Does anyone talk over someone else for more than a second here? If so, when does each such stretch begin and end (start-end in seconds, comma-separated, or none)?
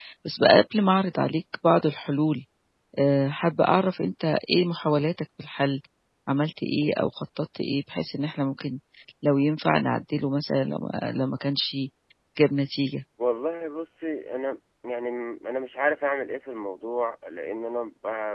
none